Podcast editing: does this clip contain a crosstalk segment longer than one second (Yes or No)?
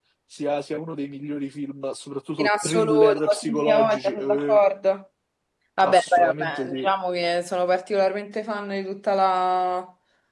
Yes